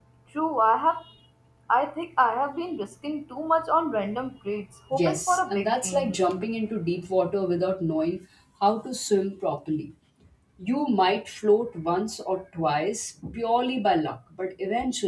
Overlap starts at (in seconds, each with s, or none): 4.9 s